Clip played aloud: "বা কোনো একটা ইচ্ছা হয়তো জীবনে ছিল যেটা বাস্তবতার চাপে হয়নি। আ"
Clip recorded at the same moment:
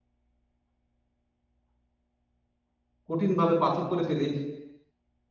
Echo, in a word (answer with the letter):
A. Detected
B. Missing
B